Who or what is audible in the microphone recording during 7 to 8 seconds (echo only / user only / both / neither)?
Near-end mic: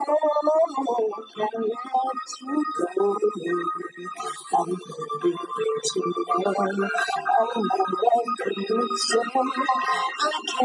echo only